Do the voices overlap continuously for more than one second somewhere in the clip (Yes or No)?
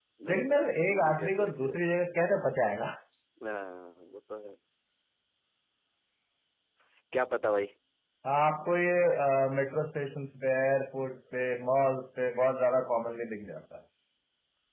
Yes